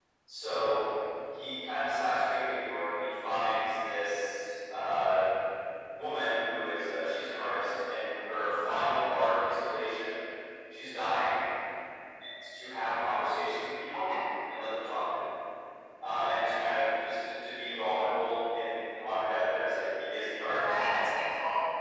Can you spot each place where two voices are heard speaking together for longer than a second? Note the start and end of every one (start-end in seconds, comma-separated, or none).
none